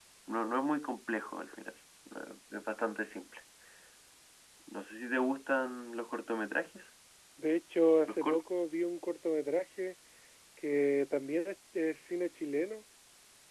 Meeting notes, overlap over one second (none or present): none